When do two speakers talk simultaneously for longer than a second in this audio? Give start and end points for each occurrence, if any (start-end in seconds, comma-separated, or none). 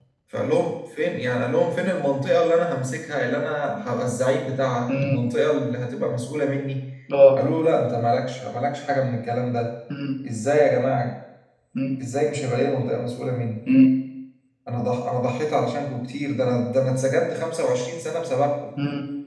none